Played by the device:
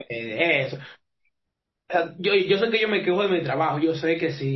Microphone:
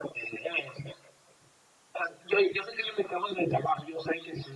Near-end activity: none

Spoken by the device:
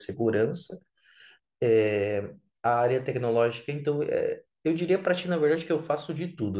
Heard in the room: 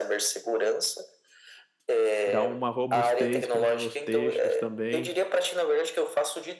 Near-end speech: present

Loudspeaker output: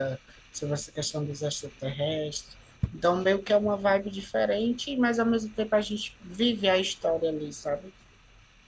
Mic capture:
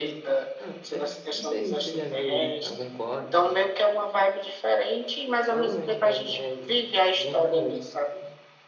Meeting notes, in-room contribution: present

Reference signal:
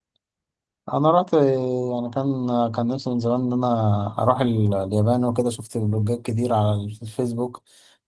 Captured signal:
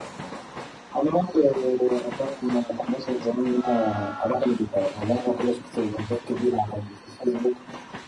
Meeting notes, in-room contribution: none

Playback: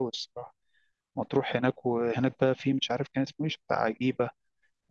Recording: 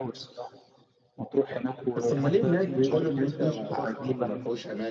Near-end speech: present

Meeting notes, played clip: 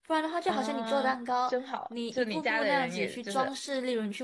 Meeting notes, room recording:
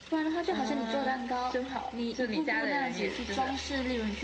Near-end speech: none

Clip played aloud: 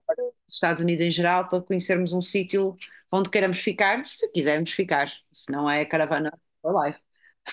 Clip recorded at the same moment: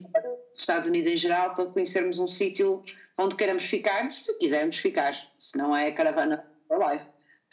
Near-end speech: none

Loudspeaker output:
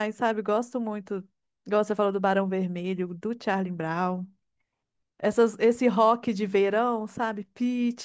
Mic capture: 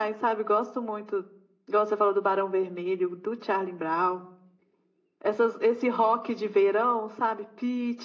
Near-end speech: none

